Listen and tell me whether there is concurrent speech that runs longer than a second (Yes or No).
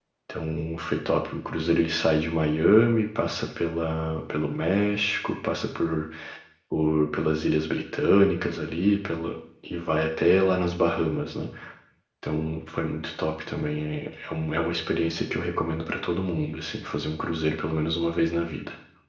No